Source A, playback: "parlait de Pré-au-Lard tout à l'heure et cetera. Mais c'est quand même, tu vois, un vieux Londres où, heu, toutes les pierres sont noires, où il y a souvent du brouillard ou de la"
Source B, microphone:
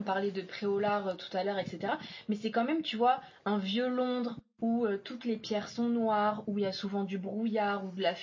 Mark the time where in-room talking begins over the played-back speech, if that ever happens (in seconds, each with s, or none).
none